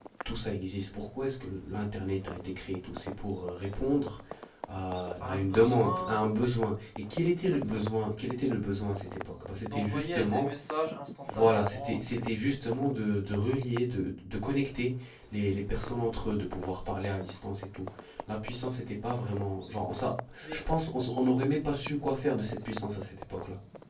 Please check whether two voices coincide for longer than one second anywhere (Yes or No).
Yes